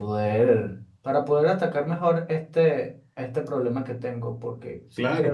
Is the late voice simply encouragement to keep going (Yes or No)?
No